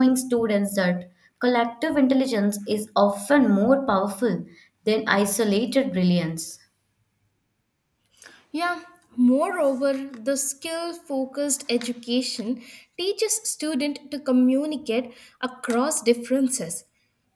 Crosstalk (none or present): none